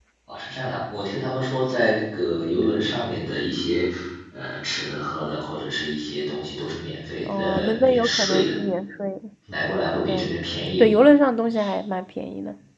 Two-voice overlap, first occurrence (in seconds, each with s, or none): 7.2 s